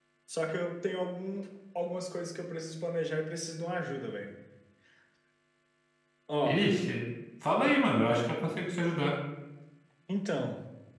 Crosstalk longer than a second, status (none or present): none